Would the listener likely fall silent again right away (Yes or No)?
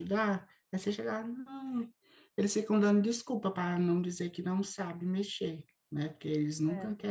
Yes